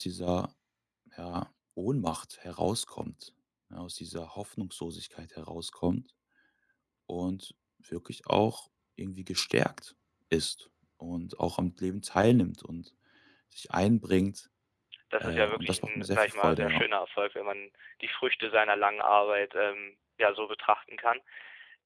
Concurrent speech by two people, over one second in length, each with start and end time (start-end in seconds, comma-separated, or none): 15.2-16.8